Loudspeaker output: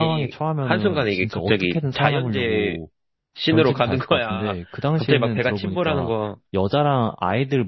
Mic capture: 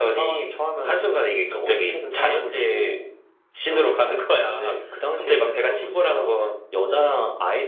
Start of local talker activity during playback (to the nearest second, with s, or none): none